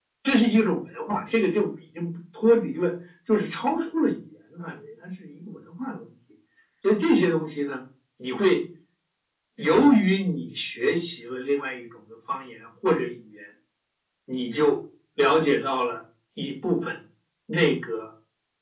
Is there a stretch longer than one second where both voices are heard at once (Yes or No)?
No